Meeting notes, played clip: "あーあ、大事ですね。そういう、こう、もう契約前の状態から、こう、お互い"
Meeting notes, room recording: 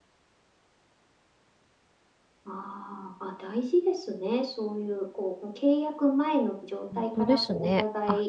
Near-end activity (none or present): present